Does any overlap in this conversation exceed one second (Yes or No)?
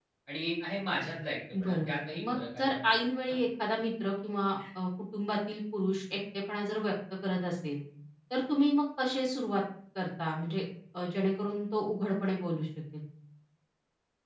Yes